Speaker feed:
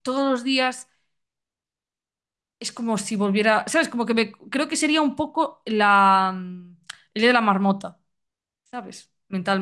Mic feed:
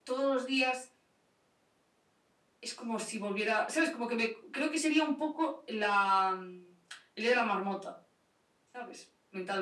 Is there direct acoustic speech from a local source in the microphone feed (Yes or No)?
No